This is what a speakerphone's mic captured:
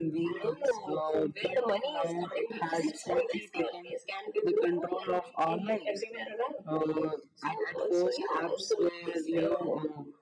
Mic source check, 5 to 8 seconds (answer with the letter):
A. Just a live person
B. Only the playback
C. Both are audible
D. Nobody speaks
B